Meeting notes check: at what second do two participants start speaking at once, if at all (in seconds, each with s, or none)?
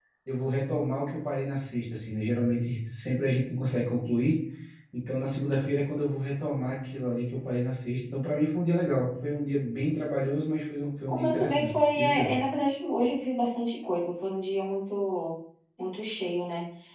11.1 s